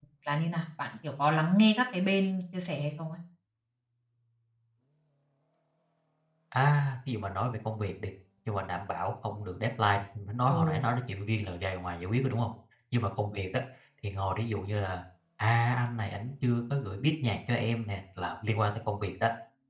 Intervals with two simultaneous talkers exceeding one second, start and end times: none

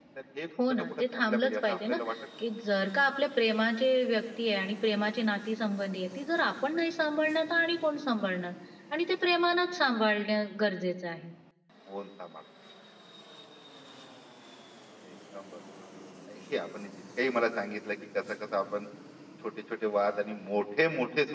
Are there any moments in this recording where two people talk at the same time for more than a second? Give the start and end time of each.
0.7-2.0

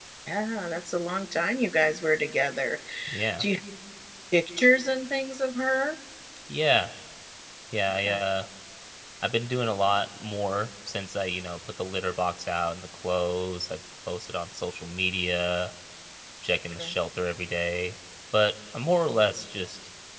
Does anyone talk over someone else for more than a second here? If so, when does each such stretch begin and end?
none

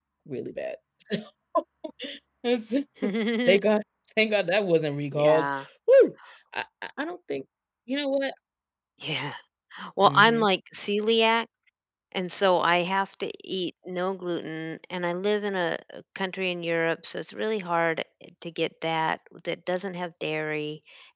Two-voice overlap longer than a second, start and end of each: none

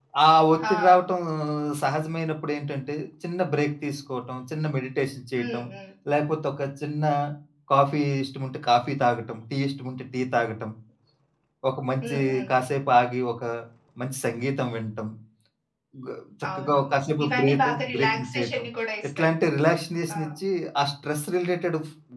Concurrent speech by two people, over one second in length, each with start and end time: 16.6-18.6

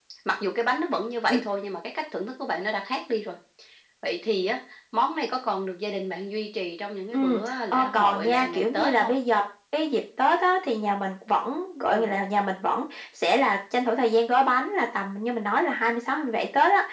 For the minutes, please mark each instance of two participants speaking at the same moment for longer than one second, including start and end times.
7.1-9.1

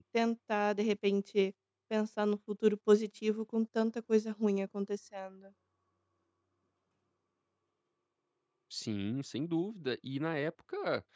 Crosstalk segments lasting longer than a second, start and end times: none

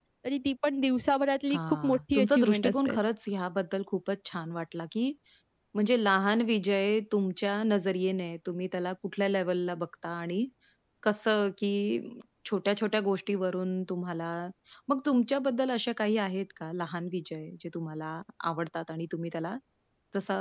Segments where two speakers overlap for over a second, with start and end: 1.5-3.0

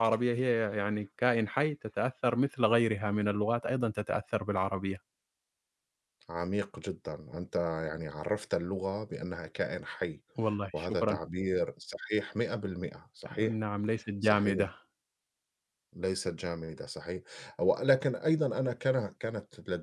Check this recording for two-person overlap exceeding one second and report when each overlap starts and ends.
none

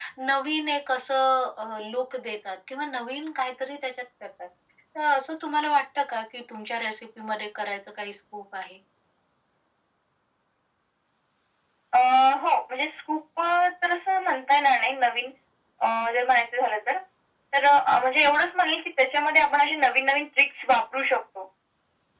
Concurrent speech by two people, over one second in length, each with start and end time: none

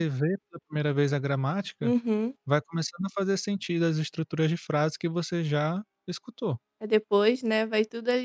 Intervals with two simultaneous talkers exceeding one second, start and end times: none

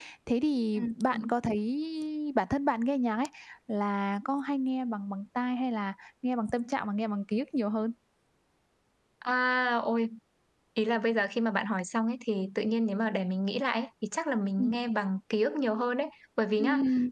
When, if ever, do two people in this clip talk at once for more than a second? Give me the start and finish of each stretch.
none

